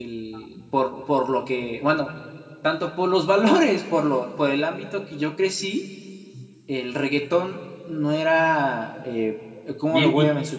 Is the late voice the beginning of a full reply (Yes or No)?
No